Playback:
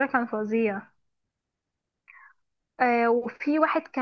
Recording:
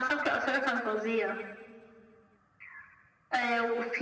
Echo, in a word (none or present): present